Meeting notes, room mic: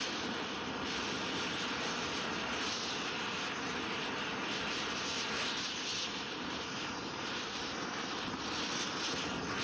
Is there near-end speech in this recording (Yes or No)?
No